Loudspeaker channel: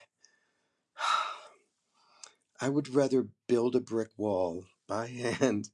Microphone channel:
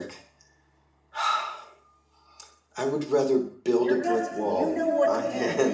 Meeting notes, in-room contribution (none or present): present